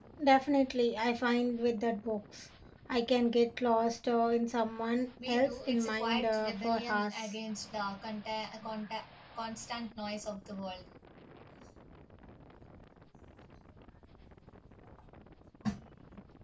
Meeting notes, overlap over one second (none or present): present